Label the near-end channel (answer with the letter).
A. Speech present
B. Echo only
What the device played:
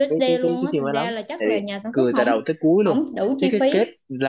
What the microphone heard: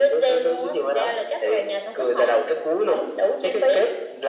B